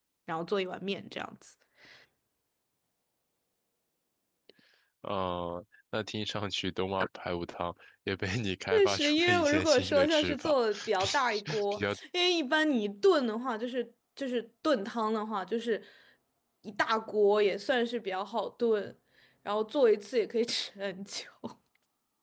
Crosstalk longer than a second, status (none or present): present